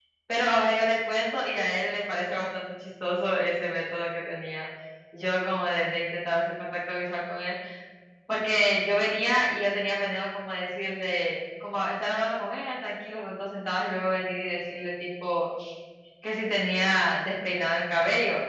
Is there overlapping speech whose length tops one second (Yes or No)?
No